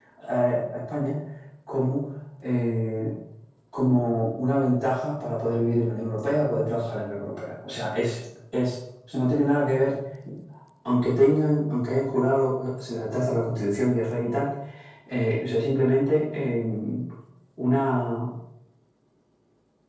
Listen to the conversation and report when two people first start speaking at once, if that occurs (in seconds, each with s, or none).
none